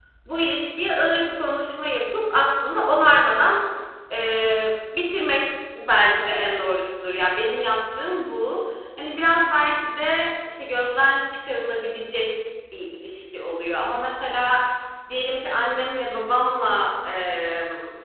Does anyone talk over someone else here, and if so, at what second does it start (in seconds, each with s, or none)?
none